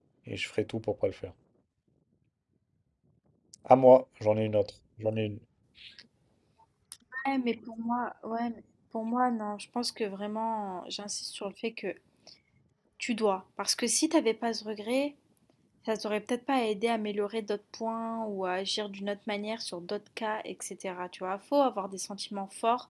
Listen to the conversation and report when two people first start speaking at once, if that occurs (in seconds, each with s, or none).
none